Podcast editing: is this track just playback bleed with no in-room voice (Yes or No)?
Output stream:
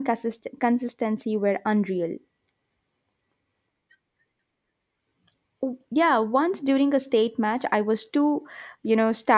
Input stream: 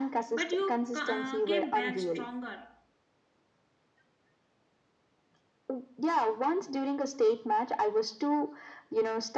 No